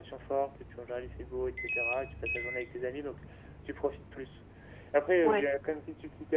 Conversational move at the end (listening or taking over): listening